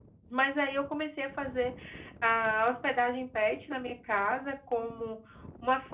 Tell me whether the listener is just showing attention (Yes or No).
Yes